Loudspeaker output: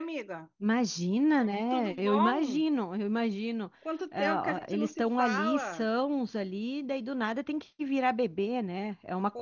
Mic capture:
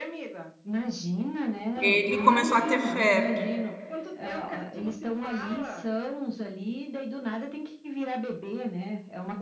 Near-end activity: present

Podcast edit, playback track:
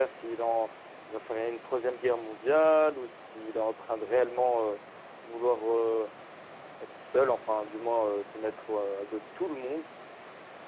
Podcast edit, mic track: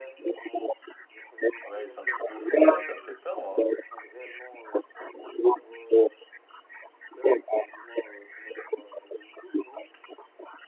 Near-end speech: present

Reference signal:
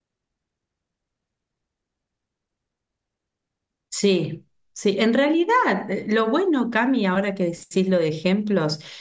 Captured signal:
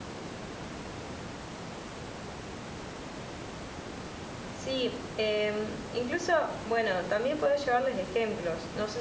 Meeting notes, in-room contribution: present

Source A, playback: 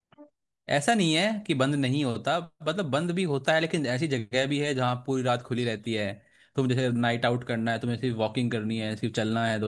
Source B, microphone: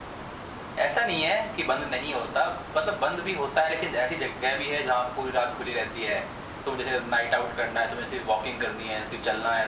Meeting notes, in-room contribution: none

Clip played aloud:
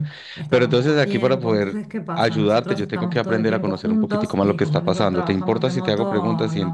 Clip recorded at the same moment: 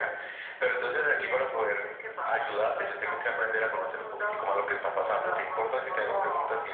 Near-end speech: none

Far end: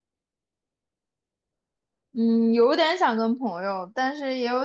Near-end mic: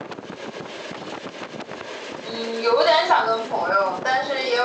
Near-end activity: none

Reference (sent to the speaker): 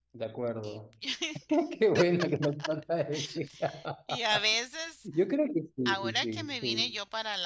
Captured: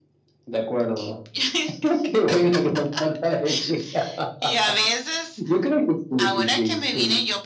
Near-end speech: none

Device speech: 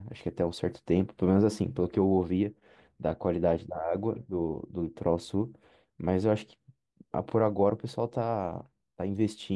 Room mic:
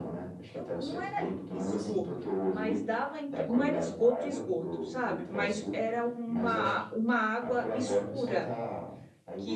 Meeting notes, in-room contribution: present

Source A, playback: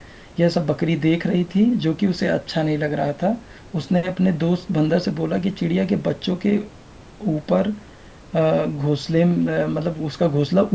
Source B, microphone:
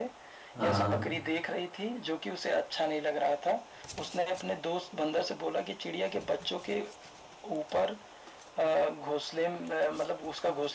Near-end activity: present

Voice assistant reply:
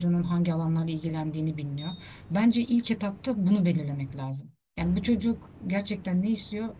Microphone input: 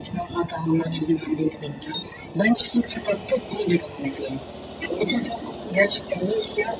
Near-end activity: none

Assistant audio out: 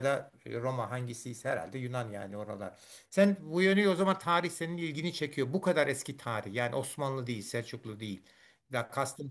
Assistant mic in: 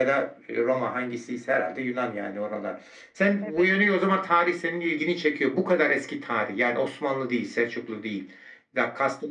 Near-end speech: present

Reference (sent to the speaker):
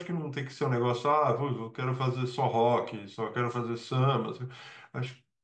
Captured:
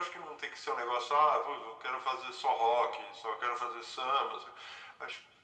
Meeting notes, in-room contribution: none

